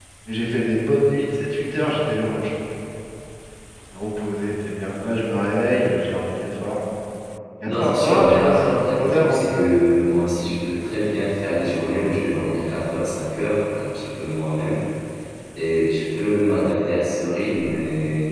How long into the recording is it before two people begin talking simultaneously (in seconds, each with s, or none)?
7.6 s